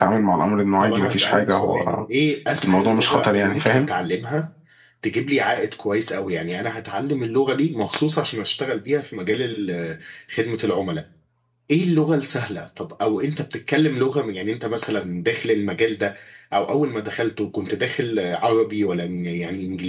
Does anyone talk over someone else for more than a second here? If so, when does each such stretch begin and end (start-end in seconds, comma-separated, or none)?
0.8-2.0, 2.6-3.9